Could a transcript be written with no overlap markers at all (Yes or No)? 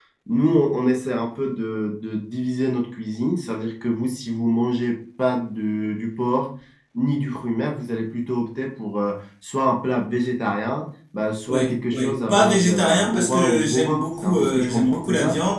No